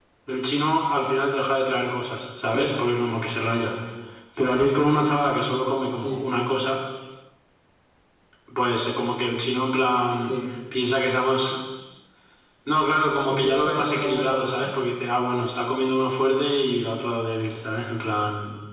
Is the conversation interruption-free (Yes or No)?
No